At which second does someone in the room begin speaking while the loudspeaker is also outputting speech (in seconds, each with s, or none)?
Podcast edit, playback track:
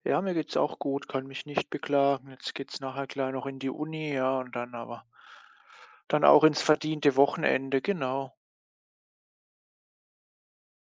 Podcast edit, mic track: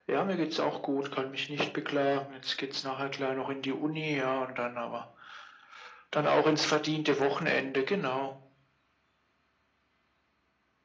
none